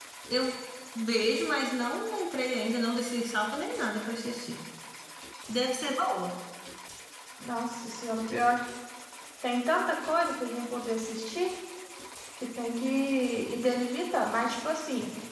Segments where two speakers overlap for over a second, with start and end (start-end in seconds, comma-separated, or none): none